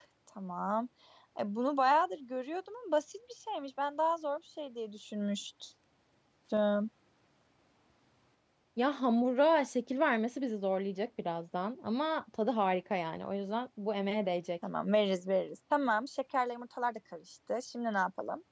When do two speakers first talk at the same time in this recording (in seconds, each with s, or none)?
none